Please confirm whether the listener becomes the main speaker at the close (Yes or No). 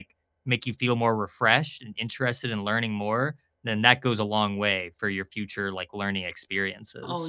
Yes